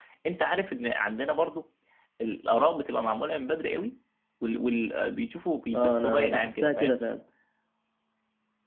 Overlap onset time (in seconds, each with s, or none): 5.7 s